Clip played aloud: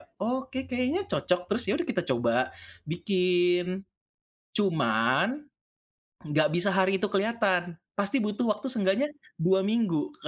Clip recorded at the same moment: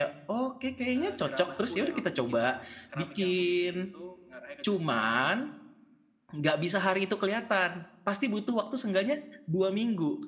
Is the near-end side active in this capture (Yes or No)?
Yes